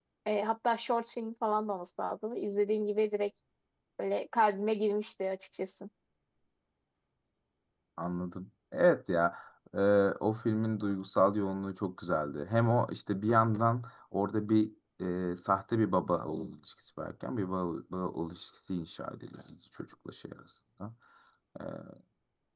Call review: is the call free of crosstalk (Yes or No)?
Yes